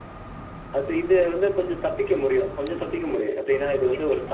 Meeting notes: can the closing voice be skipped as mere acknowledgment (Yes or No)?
Yes